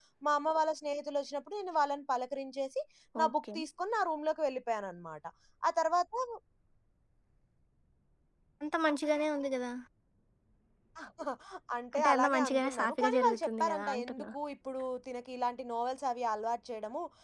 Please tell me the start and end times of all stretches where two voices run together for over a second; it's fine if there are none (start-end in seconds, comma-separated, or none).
12.0-14.2